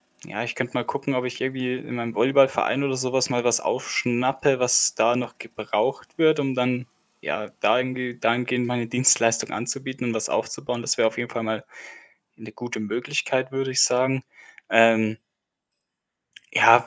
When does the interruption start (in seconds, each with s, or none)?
none